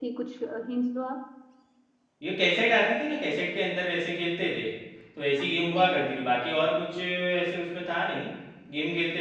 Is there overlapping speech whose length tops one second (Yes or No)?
No